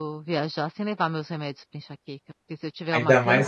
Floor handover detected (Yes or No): Yes